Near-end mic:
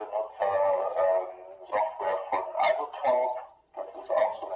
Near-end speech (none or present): none